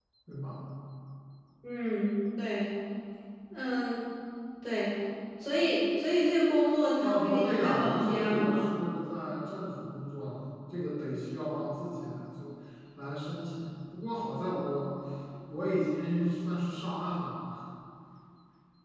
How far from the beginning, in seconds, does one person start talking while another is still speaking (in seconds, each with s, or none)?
7.0 s